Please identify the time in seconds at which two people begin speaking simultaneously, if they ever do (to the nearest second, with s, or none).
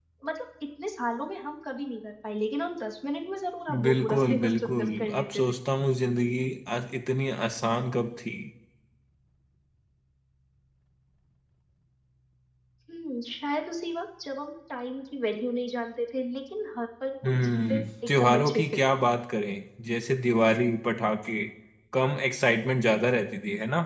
4 s